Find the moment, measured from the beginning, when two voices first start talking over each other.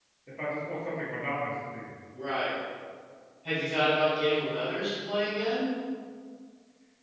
none

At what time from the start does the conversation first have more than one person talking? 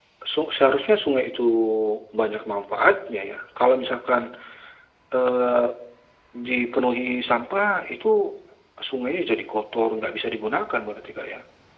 none

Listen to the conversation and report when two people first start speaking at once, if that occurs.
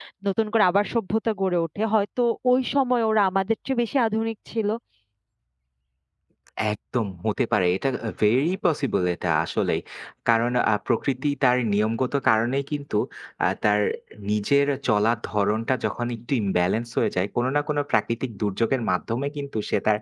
none

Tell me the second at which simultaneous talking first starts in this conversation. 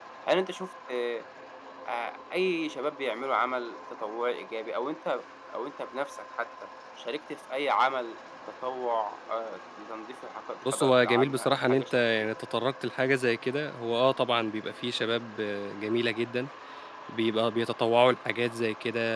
10.6 s

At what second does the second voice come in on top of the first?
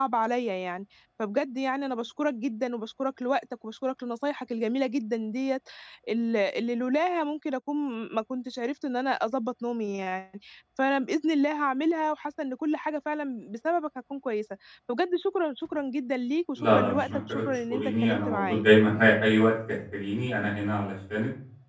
16.6 s

